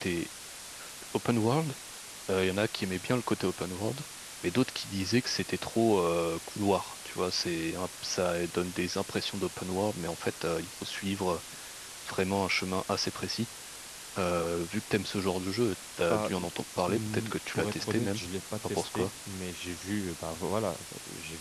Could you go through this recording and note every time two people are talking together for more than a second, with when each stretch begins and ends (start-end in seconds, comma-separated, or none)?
16.9-18.2